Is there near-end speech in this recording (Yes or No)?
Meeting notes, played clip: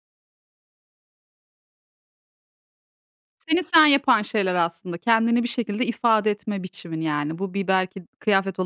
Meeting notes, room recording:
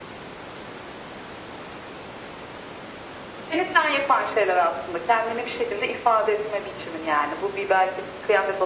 No